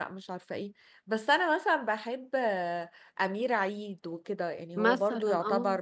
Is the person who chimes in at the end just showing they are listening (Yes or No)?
Yes